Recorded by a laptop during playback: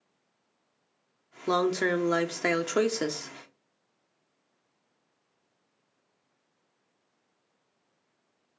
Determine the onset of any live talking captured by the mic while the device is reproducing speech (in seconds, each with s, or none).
1.5 s